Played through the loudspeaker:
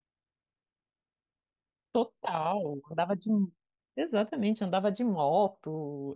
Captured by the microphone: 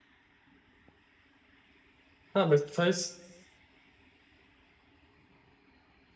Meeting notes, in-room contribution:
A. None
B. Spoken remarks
B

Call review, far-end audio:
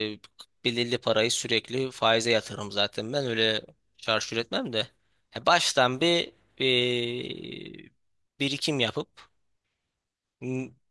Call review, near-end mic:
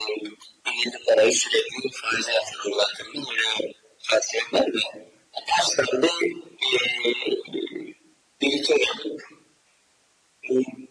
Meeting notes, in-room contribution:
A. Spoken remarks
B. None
B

